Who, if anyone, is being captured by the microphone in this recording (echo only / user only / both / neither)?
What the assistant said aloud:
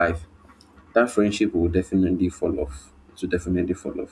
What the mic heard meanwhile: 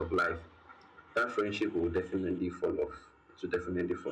echo only